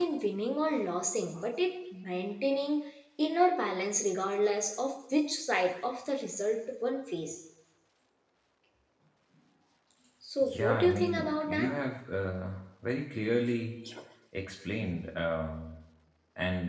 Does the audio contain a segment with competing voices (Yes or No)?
Yes